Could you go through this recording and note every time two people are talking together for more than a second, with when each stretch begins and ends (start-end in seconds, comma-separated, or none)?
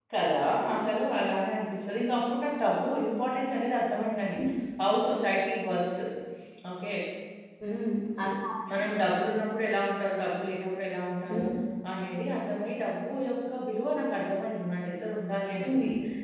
none